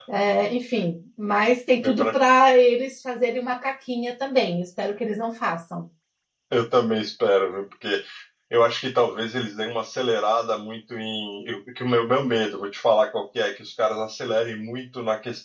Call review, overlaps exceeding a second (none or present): none